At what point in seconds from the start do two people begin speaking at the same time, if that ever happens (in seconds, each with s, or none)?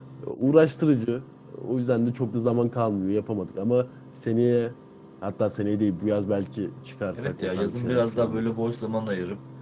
7.2 s